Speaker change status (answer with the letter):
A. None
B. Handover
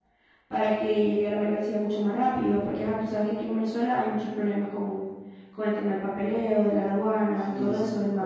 B